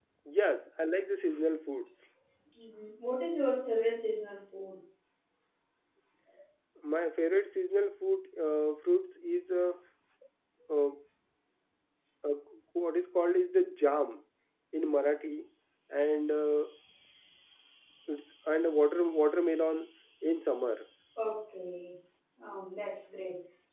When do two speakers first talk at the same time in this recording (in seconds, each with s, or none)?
none